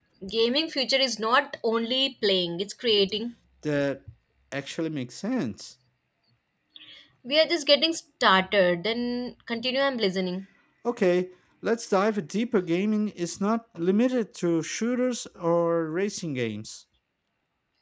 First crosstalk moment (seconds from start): none

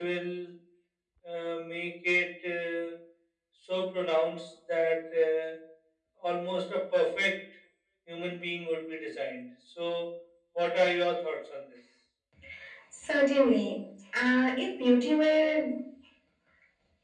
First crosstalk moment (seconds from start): none

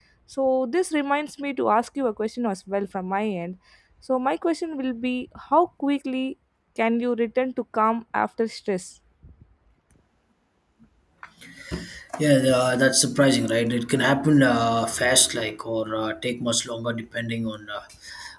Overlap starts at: none

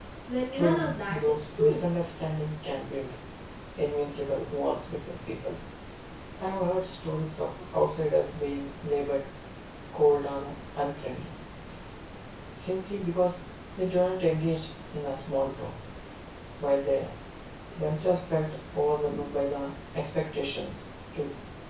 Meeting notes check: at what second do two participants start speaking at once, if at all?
1 s

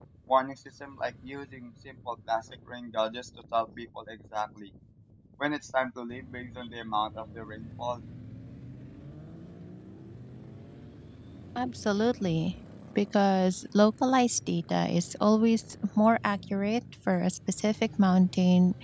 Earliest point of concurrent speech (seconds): none

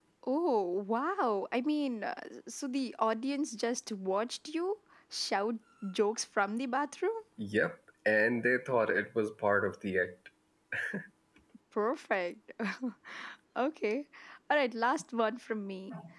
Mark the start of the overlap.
none

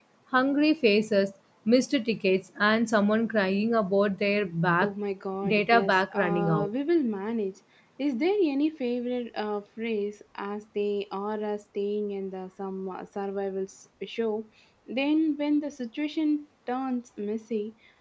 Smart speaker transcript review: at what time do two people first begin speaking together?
5 s

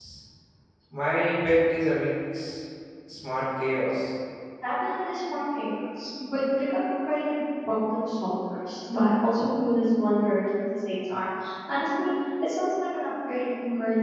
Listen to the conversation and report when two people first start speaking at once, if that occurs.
none

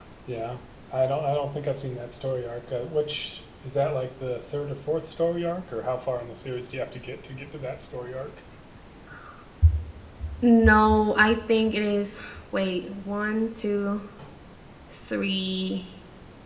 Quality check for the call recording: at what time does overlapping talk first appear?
none

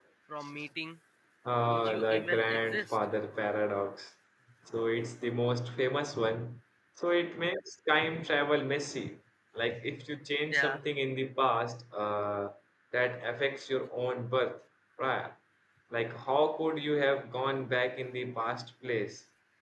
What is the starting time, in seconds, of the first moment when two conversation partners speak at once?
2 s

